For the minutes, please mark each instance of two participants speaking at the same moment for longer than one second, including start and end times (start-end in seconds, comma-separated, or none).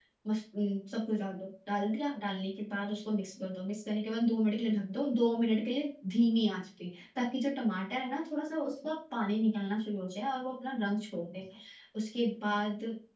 none